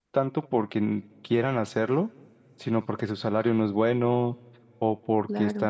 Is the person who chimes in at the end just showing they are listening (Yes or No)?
Yes